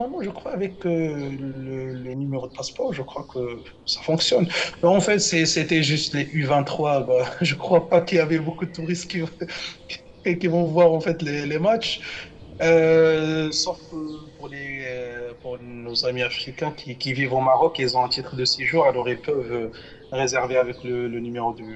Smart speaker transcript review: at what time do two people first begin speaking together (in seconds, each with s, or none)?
none